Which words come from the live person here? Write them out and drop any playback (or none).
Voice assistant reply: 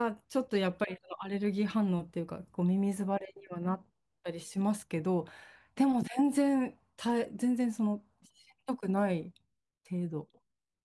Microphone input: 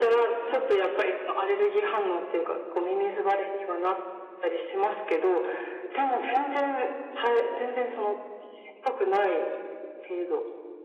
はい。